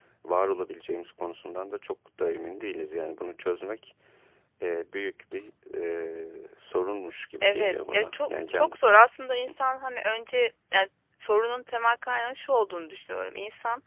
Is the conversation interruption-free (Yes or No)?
No